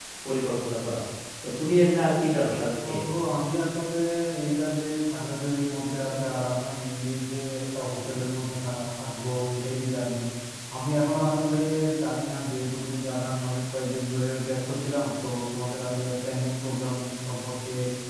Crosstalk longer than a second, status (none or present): none